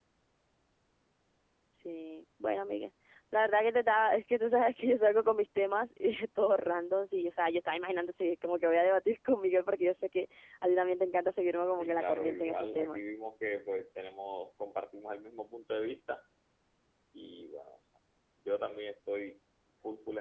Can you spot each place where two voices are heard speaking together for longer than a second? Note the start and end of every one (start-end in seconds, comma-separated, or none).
11.8-13.0